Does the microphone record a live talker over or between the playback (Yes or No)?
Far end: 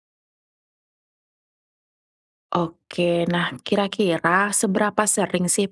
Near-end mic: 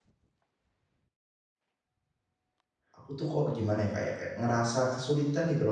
Yes